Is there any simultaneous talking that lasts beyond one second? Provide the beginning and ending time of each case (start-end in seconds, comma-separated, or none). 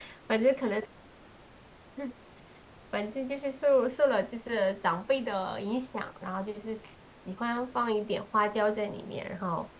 none